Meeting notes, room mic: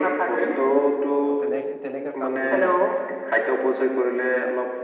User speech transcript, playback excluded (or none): ত' তেনে-তেনেকে কাম কৰিলে।